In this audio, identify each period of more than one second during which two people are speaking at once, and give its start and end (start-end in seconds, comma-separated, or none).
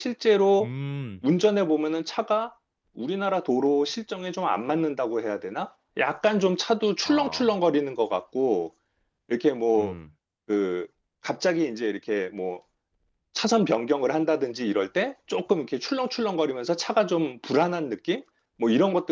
none